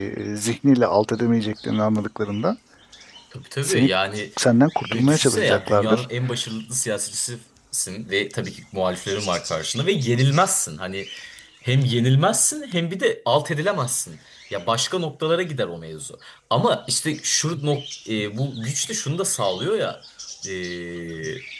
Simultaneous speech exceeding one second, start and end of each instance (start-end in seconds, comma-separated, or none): 4.8-6.0